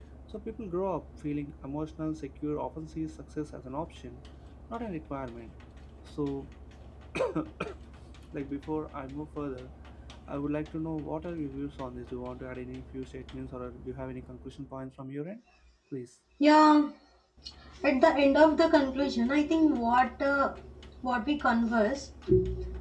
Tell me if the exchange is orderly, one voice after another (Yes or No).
Yes